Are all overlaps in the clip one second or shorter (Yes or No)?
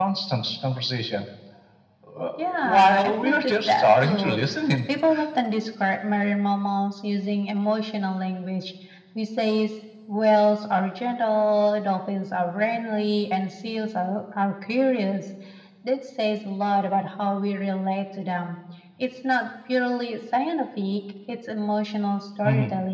No